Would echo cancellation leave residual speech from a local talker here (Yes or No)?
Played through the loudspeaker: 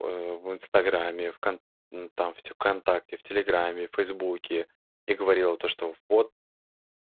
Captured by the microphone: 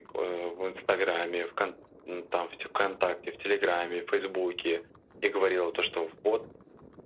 No